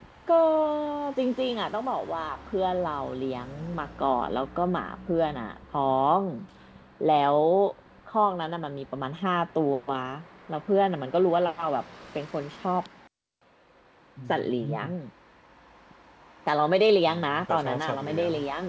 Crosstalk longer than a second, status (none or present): present